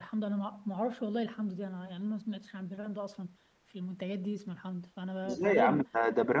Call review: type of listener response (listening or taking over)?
taking over